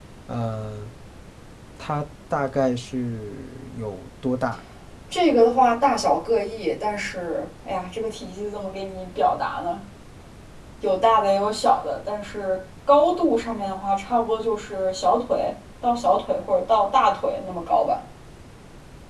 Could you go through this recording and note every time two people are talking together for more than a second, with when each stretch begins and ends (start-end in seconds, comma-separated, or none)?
none